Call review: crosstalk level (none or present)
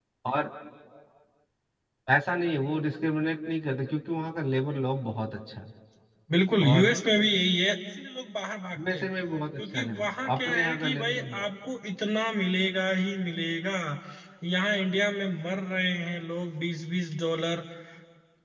present